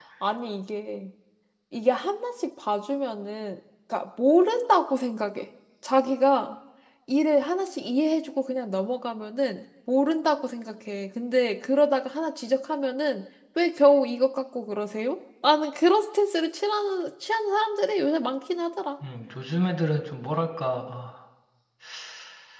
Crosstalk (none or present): none